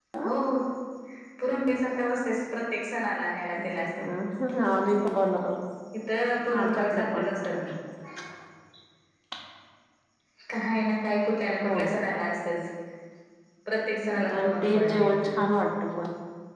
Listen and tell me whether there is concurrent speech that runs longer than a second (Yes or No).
Yes